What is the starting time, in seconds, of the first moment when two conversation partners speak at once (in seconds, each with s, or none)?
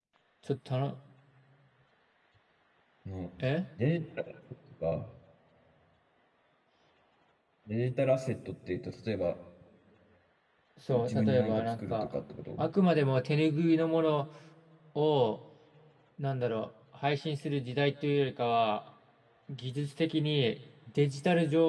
10.9 s